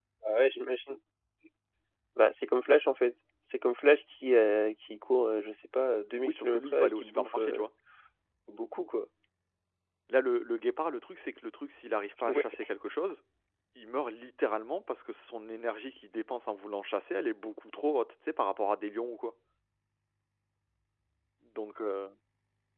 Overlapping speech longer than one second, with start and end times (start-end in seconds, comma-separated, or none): 6.2-7.7